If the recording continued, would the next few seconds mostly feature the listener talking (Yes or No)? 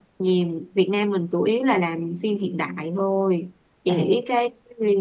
No